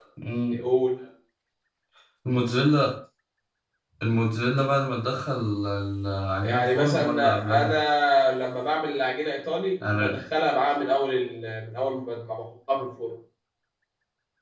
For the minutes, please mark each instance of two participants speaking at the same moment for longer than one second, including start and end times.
6.4-7.8

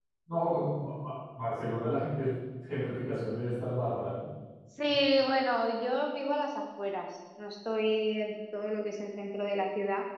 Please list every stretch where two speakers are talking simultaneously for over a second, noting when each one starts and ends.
none

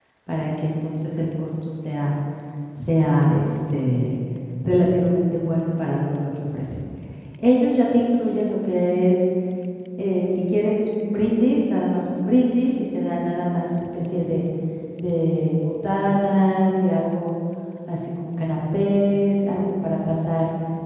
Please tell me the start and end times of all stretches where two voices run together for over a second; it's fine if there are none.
none

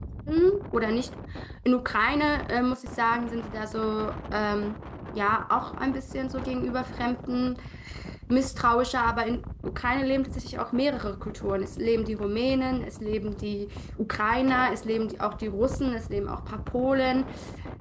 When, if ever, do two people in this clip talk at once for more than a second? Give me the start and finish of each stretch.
none

